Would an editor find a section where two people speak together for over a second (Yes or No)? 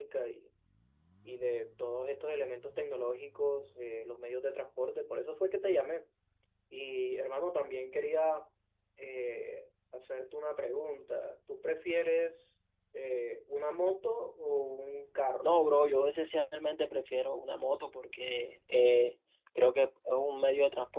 No